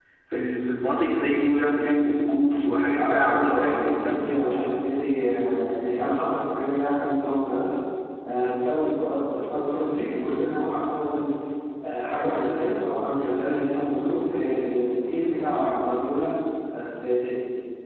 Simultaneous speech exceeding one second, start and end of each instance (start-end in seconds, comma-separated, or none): 3.0-4.2